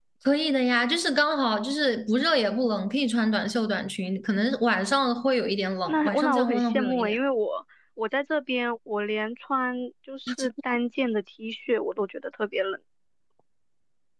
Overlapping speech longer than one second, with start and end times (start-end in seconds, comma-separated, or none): 5.9-7.2